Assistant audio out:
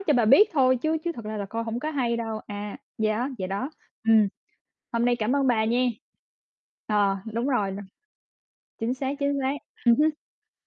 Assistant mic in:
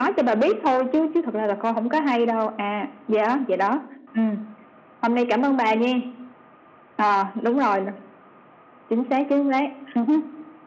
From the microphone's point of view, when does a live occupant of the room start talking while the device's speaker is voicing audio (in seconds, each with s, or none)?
none